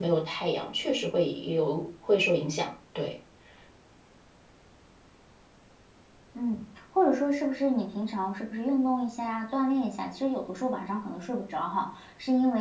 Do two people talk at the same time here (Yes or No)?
No